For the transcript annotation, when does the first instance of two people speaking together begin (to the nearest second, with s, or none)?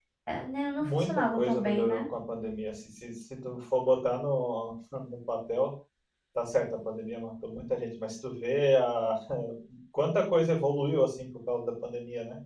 1 s